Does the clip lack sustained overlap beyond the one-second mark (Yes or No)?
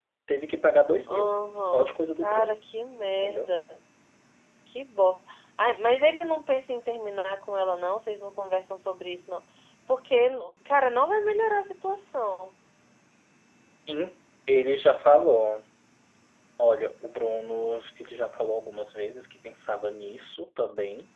No